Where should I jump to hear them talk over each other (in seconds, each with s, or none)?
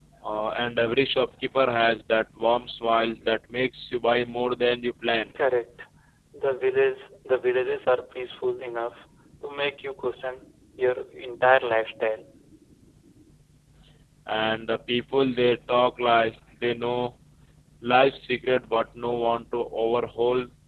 none